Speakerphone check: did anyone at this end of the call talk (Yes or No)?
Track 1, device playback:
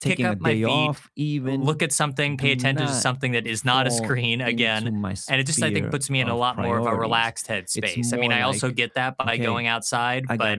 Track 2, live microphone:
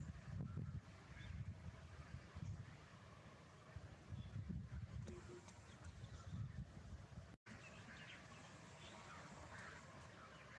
No